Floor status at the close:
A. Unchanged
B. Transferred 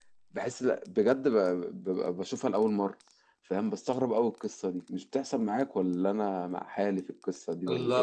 B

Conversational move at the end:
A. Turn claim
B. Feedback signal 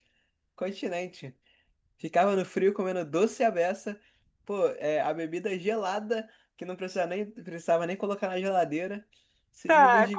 A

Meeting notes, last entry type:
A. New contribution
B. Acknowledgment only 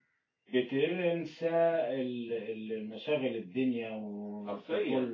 B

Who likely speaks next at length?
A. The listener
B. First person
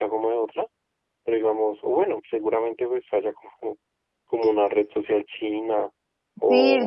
A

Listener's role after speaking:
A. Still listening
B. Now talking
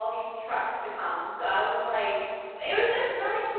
A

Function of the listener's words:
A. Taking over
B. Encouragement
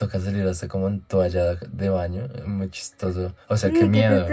A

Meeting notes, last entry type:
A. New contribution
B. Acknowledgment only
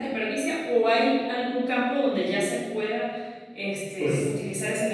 B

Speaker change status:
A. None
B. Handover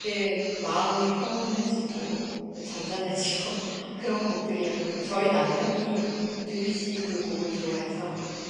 B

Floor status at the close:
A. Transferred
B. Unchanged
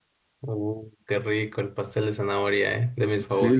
A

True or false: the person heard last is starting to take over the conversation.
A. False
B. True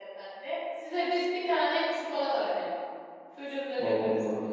B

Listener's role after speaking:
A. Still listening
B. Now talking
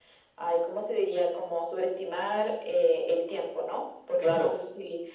A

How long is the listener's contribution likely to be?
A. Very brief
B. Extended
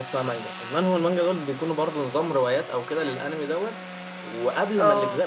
A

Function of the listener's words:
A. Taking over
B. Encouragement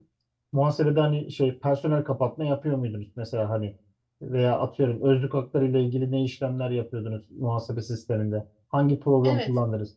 B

